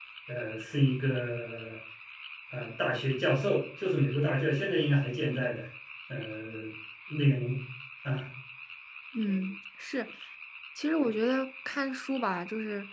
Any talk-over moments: No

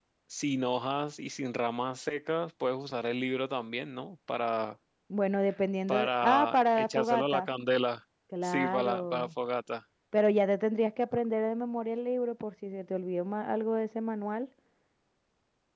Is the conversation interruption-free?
No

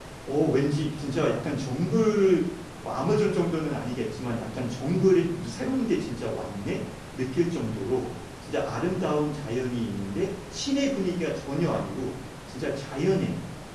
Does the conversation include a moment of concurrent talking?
No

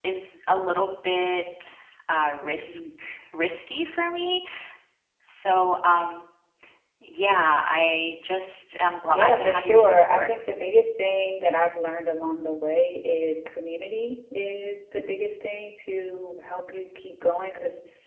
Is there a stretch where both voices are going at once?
Yes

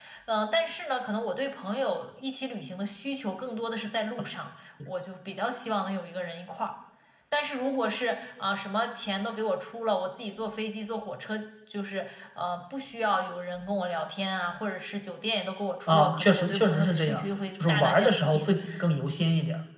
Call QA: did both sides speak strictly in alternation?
No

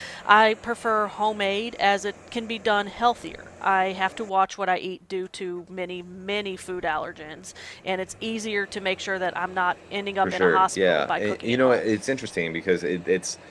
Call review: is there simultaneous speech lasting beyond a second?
Yes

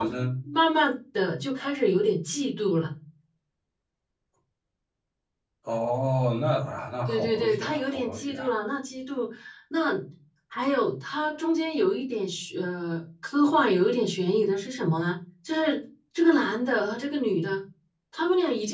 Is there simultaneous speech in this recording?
Yes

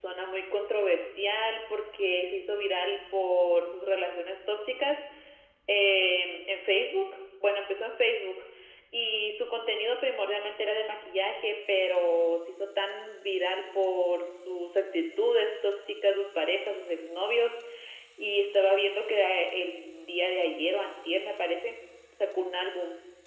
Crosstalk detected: No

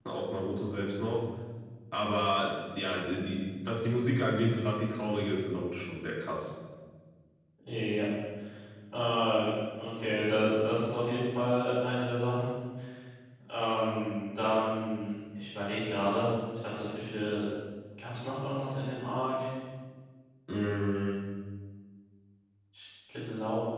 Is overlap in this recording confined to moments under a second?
Yes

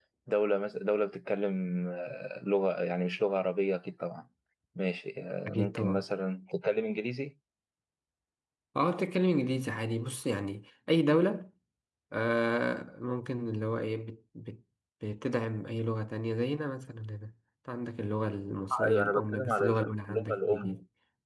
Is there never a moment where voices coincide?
No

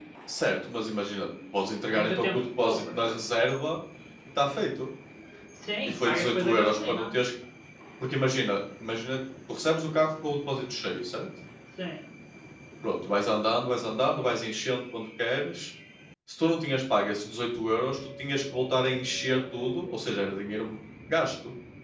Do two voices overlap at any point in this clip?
Yes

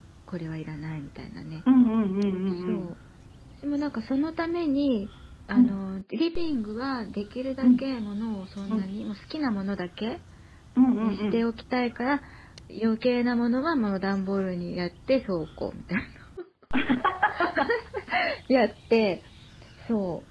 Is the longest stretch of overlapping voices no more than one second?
Yes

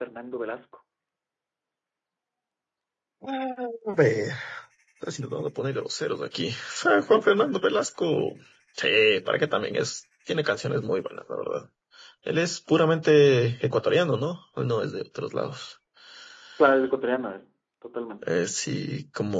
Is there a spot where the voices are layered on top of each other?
No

